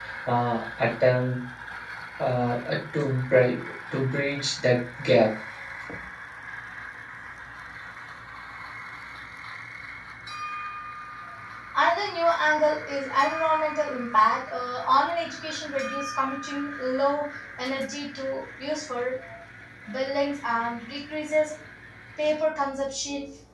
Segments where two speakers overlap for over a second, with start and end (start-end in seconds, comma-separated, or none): none